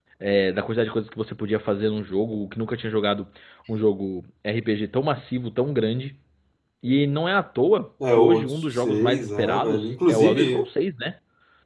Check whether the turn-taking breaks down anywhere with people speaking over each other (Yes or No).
Yes